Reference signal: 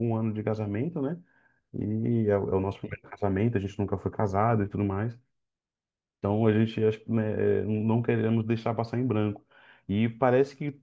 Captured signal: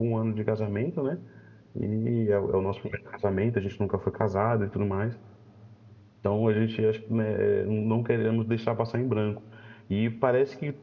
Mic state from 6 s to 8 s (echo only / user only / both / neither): echo only